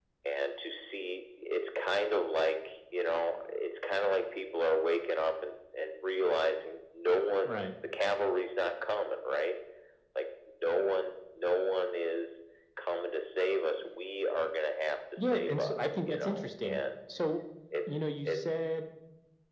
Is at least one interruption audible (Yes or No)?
Yes